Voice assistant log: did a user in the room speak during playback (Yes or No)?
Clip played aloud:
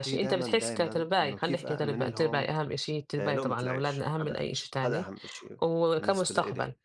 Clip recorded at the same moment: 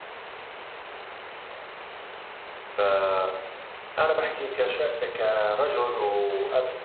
Yes